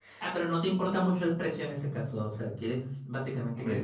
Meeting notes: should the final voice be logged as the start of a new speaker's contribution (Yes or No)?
Yes